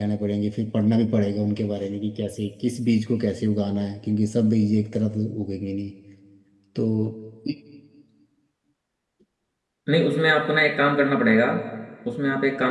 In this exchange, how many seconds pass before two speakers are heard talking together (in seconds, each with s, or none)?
none